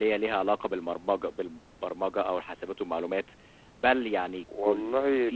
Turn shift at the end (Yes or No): No